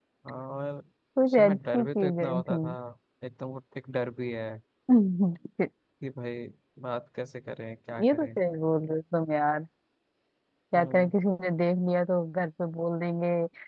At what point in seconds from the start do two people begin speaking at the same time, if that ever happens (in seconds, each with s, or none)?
1.2 s